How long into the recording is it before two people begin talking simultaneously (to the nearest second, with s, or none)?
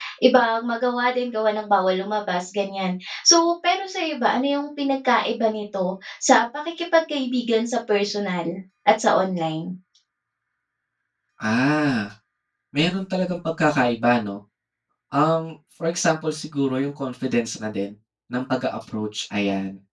none